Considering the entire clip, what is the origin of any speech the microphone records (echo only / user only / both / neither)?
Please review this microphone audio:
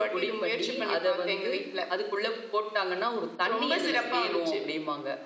echo only